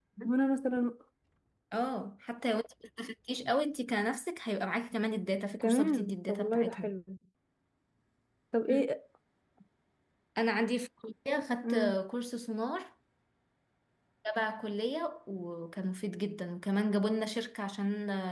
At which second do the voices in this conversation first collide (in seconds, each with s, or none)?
5.6 s